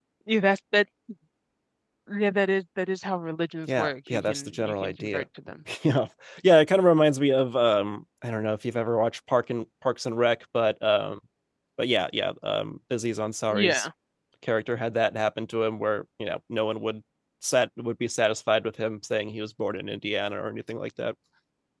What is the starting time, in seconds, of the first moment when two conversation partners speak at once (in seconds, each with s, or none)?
3.8 s